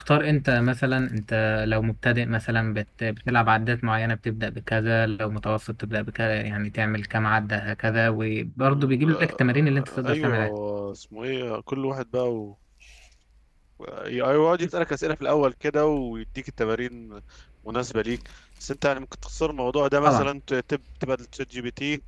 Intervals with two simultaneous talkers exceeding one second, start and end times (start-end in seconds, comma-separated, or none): 8.6-10.4